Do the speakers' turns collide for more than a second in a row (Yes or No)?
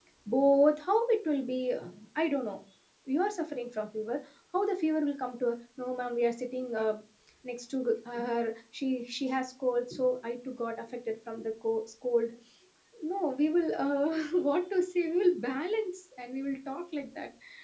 No